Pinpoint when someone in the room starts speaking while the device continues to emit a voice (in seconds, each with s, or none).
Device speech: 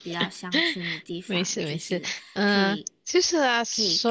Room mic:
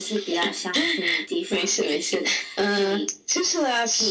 none